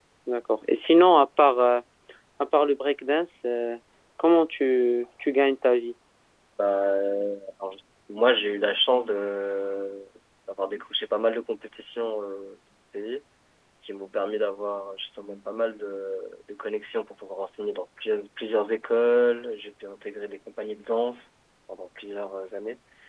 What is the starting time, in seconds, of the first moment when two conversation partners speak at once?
none

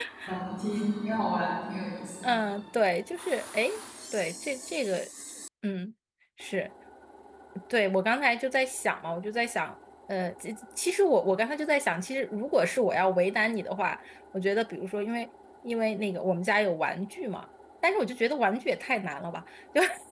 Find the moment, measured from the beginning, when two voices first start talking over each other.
none

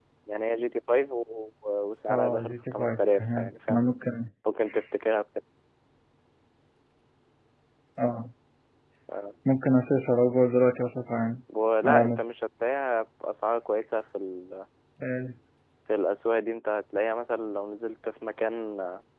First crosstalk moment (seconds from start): 2.1 s

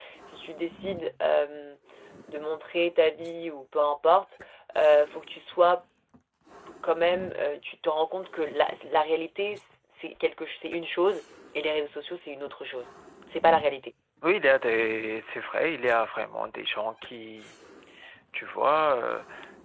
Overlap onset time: none

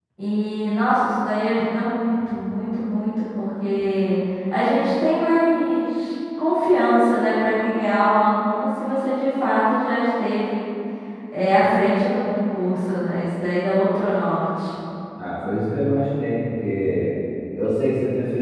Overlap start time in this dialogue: none

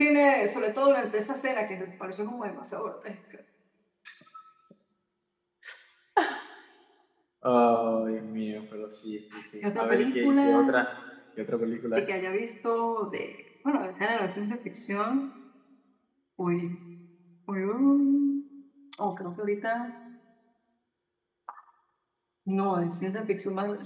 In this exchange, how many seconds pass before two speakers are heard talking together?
9.6 s

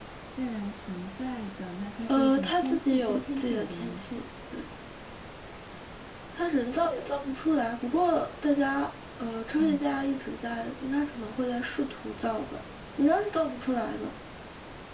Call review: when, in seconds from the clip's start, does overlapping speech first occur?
2.1 s

